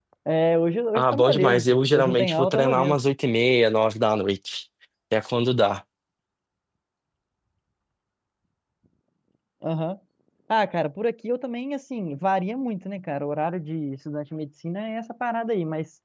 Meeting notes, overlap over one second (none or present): present